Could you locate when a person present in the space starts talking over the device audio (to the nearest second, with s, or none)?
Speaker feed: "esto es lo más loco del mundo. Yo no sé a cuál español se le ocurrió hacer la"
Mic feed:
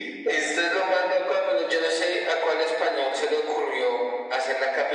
none